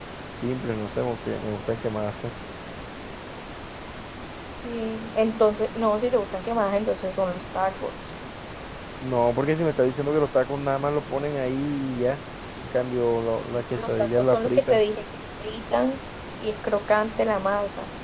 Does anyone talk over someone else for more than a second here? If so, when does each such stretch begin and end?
13.5-14.8

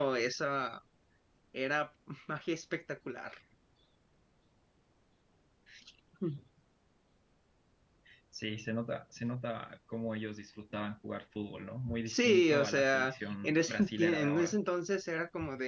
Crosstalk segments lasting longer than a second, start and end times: 12.1-14.6

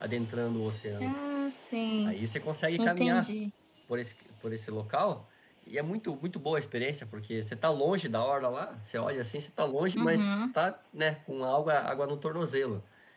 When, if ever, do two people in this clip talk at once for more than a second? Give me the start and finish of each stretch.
none

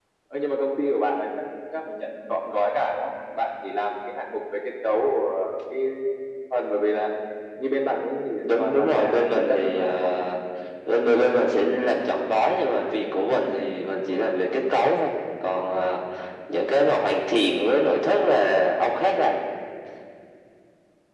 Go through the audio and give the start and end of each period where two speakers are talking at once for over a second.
8.4-10.1

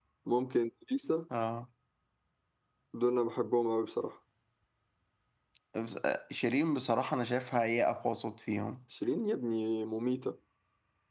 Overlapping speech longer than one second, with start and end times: none

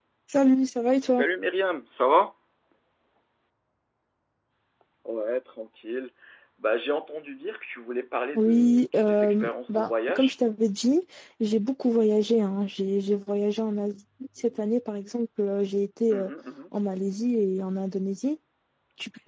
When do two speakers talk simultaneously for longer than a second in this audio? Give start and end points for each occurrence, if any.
8.3-10.3

